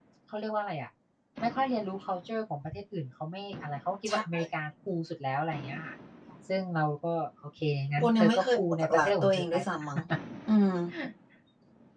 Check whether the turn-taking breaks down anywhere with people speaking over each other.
Yes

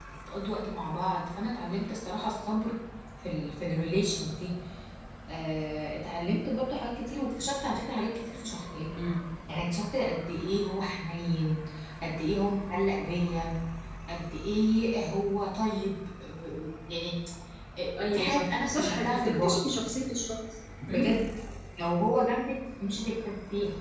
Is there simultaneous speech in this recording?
Yes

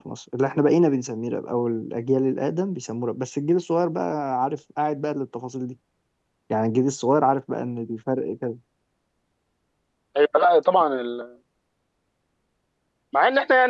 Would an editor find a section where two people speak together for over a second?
No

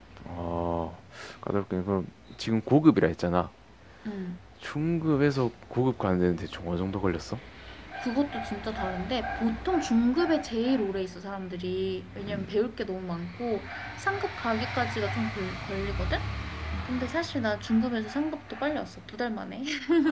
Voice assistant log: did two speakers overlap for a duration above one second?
No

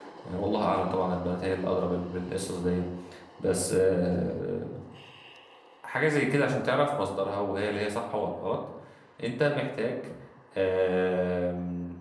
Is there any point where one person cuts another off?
No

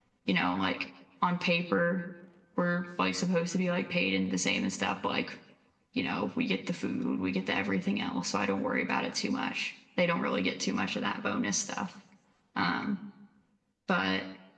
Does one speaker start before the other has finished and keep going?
No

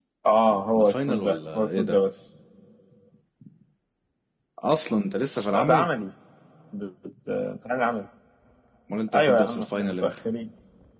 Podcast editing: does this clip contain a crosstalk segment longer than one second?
Yes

